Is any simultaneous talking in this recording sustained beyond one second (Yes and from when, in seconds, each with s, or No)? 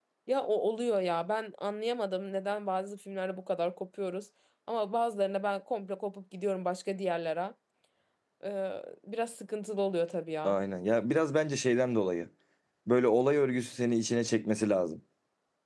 No